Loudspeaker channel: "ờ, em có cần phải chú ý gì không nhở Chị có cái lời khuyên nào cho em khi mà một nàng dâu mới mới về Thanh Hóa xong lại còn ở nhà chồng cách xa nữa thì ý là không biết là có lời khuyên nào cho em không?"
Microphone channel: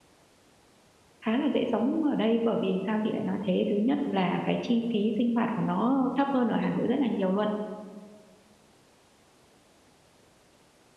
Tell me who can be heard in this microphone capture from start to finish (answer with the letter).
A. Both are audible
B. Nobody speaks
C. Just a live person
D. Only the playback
C